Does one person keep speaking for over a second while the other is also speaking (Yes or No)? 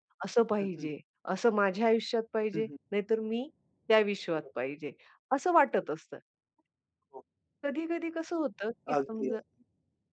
No